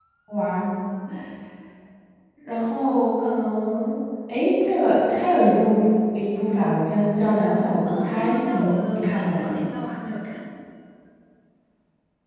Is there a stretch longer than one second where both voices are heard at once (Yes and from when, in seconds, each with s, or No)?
Yes, from 7.9 s